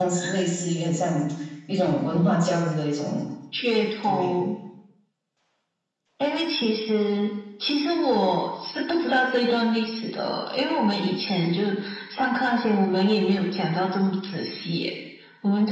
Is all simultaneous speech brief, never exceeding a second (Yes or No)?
Yes